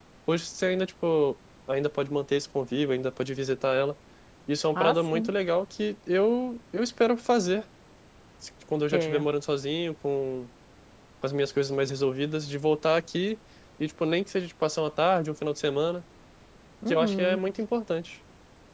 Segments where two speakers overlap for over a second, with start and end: none

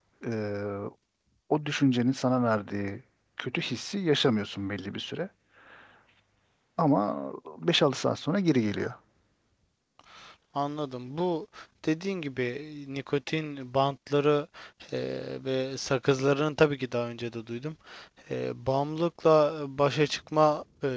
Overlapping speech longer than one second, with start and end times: none

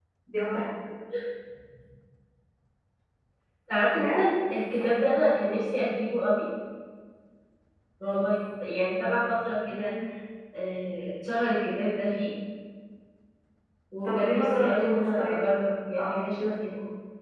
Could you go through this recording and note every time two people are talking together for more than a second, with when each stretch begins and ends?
14.0-15.4

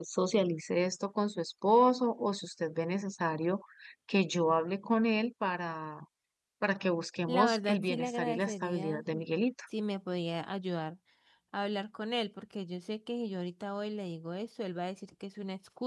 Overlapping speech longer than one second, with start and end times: 7.3-9.0

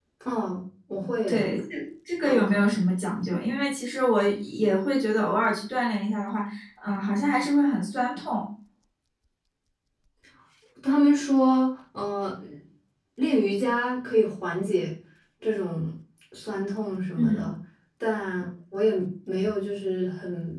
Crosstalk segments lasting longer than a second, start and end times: none

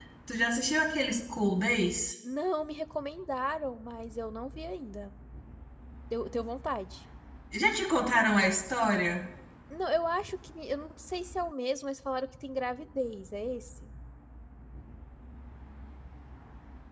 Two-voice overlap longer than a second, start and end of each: none

